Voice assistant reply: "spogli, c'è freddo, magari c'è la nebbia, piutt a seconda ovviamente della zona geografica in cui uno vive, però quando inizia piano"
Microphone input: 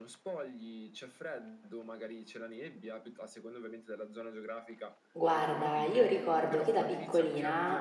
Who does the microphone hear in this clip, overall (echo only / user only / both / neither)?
both